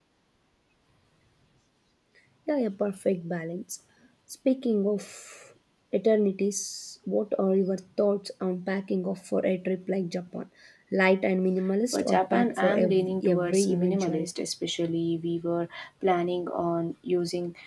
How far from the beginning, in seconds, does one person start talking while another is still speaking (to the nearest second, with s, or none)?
12 s